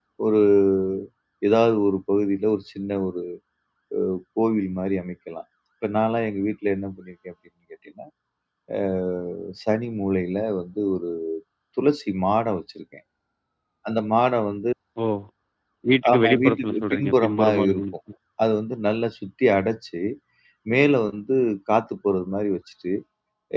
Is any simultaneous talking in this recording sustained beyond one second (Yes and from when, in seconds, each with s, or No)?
Yes, from 16.1 s